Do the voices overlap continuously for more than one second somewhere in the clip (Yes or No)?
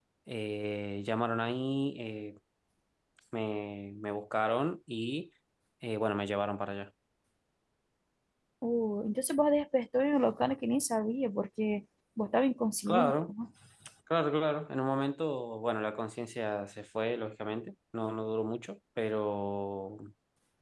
No